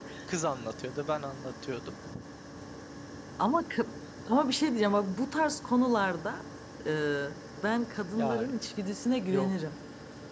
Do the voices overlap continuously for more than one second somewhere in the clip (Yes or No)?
No